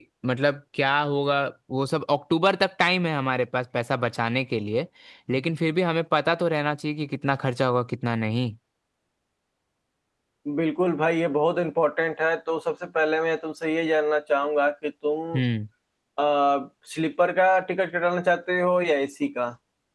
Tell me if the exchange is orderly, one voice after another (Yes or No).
Yes